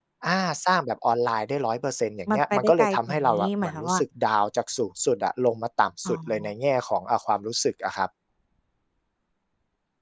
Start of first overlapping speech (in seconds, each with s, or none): 2.3 s